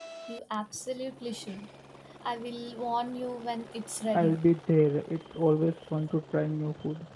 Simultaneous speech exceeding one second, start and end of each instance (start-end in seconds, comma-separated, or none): none